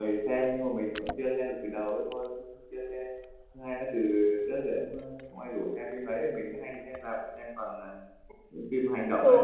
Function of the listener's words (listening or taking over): taking over